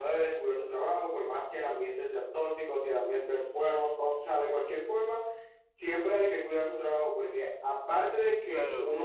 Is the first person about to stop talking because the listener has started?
No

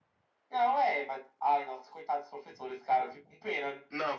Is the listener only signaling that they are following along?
No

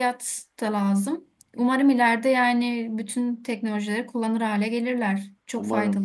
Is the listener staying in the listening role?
No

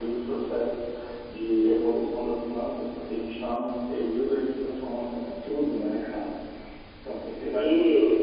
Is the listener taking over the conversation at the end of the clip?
Yes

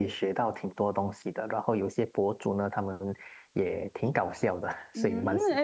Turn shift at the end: Yes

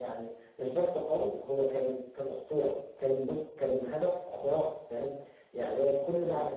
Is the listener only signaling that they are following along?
Yes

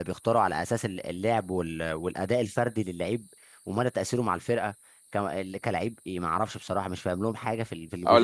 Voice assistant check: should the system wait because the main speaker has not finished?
No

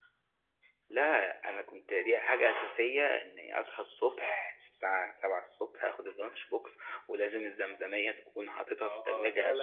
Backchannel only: No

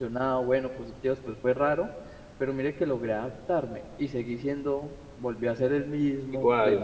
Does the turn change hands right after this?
No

